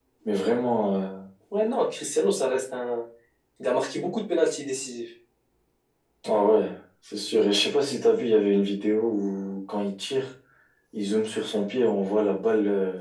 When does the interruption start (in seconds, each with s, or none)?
none